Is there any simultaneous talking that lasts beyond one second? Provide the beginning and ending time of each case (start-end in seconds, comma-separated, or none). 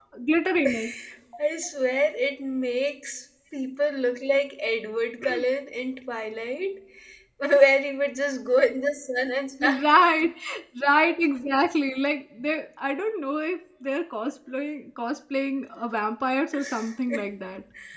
none